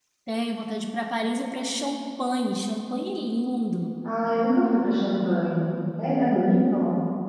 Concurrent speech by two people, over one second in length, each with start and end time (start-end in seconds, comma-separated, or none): none